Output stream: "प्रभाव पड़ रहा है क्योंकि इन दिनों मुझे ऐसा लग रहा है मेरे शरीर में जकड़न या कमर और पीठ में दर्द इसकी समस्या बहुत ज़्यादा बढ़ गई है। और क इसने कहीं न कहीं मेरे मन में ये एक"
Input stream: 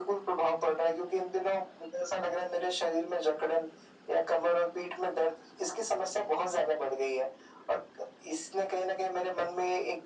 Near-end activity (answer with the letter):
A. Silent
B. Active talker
A